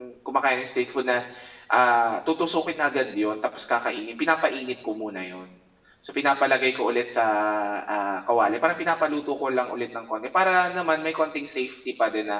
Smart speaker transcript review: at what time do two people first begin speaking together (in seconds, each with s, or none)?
none